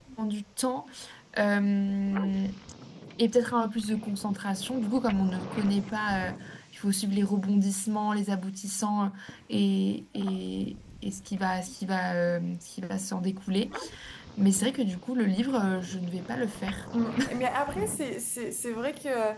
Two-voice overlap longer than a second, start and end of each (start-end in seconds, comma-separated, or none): none